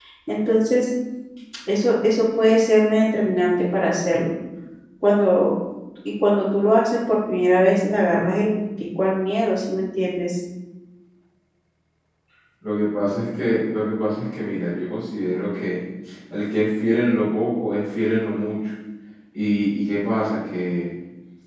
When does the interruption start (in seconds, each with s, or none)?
none